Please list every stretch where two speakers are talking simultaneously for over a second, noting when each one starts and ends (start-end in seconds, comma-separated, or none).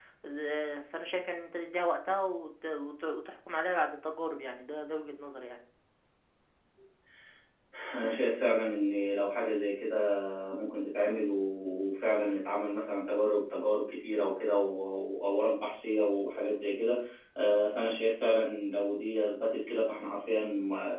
none